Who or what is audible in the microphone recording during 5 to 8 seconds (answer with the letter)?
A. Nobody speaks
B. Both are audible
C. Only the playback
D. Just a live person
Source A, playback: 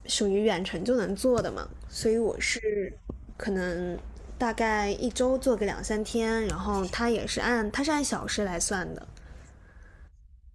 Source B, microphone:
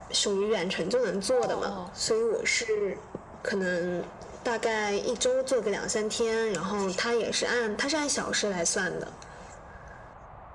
C